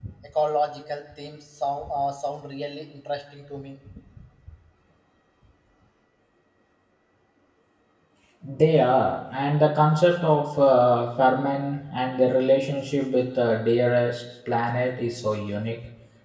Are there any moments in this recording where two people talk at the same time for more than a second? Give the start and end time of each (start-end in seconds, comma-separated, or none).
none